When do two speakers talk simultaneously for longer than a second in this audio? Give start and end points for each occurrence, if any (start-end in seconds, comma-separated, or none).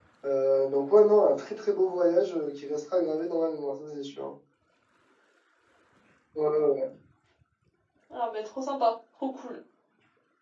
none